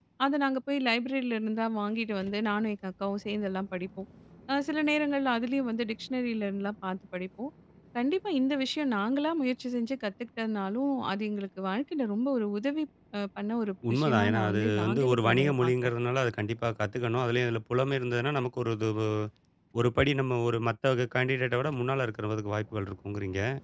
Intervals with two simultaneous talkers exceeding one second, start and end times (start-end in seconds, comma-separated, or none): 13.9-15.9